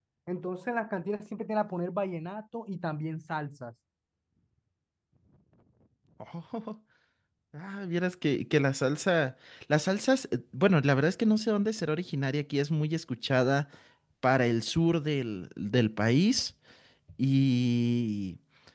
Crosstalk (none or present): none